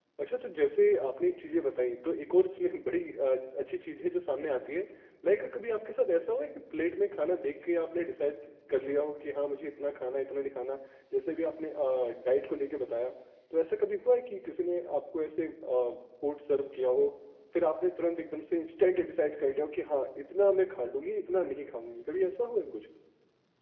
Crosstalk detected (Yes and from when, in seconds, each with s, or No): No